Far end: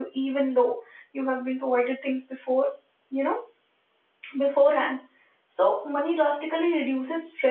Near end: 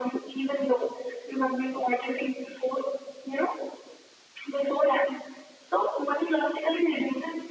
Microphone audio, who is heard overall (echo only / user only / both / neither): echo only